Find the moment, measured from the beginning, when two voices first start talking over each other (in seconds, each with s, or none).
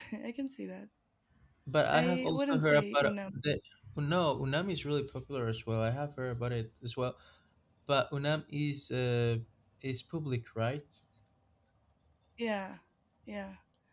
1.9 s